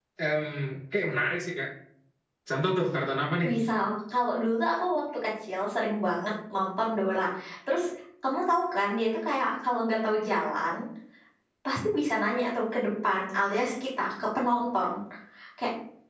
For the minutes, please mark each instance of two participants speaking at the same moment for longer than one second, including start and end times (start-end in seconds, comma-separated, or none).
none